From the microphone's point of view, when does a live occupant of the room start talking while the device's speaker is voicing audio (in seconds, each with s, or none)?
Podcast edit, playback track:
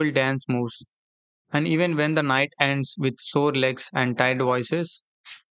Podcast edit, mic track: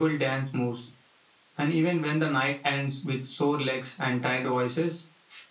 none